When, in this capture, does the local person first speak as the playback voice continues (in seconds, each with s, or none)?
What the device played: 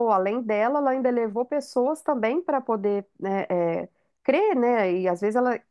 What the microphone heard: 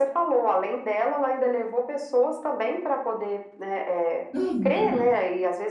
4.3 s